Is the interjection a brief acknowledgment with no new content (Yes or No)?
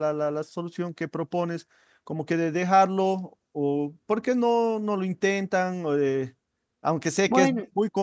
Yes